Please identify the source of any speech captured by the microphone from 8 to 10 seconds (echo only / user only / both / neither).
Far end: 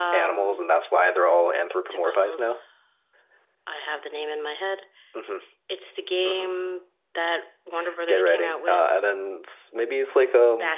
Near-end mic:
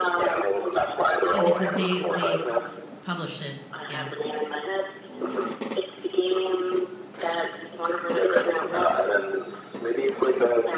echo only